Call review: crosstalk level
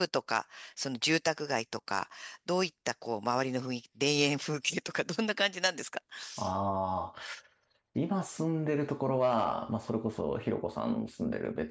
none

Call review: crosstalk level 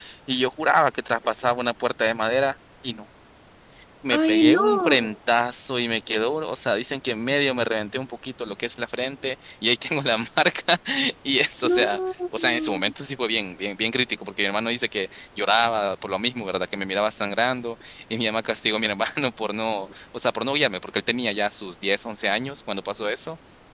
present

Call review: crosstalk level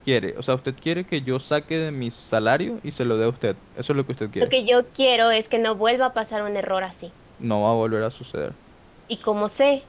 none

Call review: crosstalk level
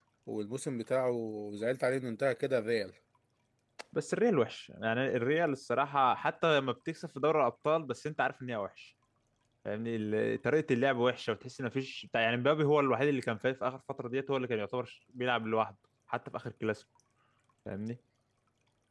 none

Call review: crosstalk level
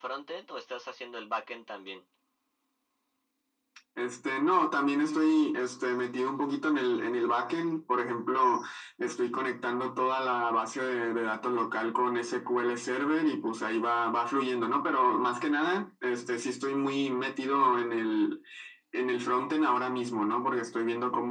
none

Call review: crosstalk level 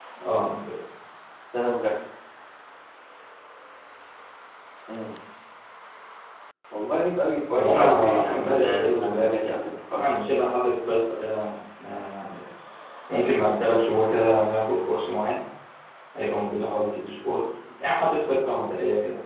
present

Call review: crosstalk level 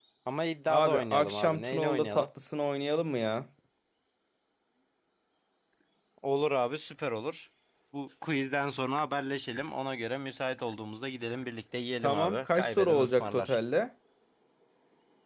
present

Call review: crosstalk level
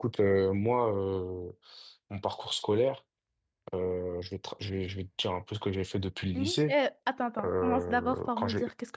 present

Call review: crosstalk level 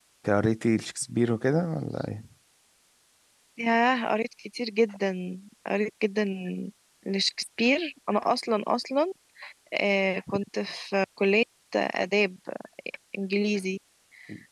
none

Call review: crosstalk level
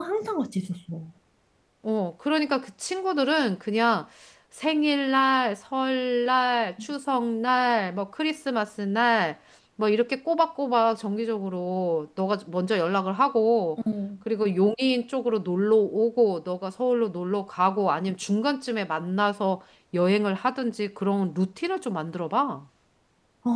none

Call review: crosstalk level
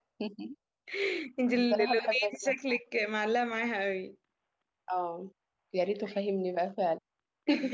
present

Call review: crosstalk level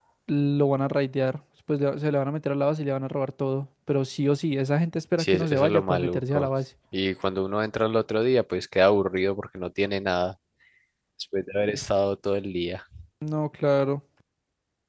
present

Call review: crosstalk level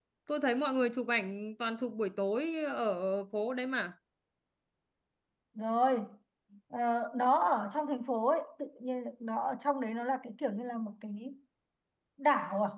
none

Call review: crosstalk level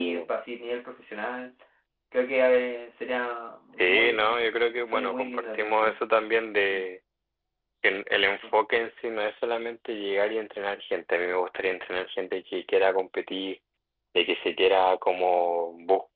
present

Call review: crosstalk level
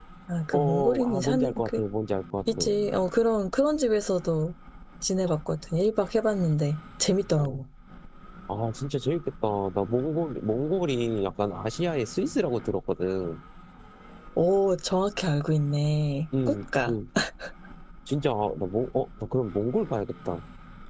present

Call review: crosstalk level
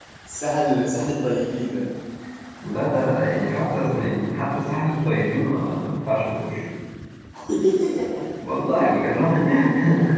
none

